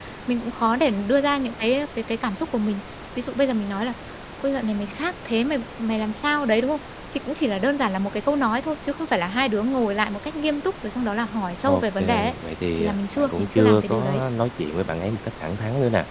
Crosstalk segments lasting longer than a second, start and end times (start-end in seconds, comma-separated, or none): 12.8-14.2